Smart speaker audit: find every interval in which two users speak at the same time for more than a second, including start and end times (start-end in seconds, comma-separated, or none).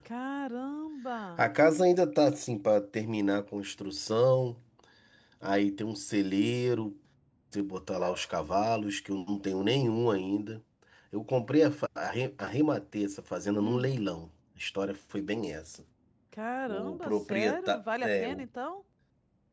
16.7-18.5